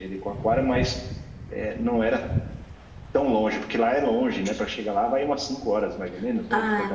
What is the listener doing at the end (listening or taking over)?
taking over